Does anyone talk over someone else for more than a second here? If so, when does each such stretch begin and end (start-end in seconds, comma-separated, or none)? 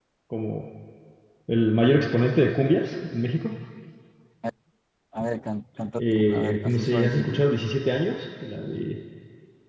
6.0-7.4